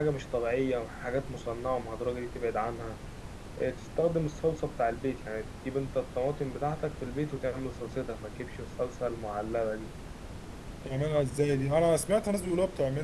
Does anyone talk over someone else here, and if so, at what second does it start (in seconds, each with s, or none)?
none